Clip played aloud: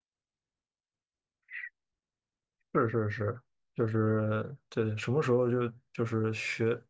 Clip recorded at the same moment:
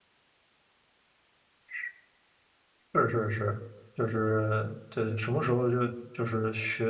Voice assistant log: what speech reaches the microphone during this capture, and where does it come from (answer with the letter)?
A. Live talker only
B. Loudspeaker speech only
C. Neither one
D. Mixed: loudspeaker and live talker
B